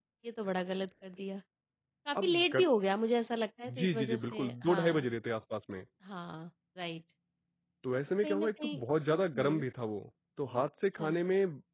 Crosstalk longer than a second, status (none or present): present